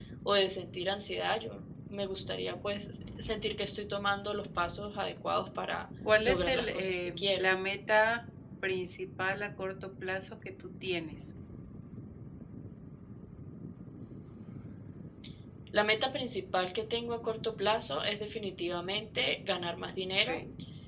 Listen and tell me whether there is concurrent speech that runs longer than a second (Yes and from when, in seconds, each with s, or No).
Yes, from 6.0 s